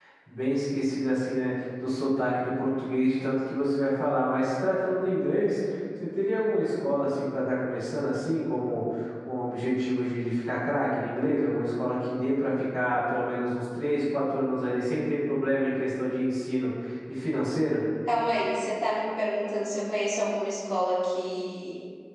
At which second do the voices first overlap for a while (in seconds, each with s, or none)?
none